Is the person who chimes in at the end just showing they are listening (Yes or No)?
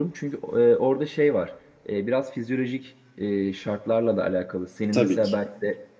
Yes